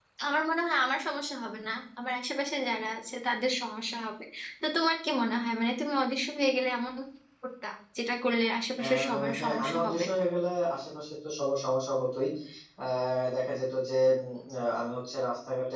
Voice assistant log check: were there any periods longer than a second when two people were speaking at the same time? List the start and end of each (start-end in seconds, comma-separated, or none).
8.8-10.0